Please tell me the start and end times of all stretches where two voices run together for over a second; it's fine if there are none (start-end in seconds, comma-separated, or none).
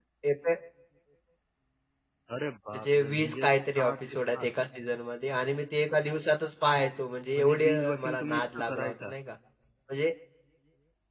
2.7-4.5, 7.4-9.1